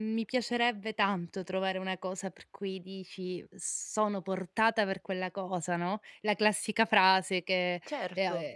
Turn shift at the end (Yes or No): No